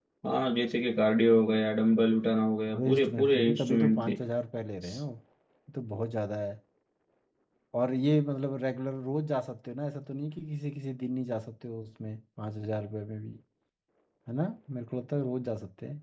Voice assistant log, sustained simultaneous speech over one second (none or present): present